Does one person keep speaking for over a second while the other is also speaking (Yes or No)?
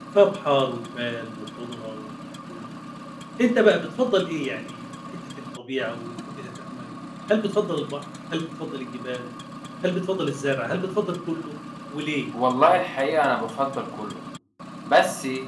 No